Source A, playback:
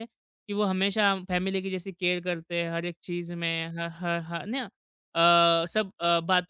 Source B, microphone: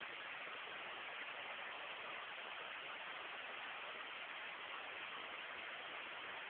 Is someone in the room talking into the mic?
No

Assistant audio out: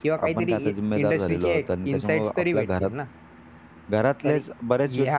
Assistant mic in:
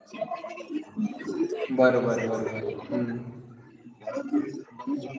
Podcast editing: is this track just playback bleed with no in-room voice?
No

